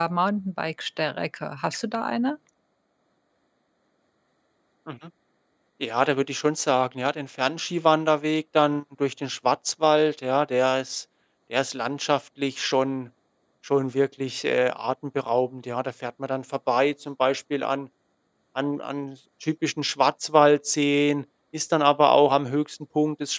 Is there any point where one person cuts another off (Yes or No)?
No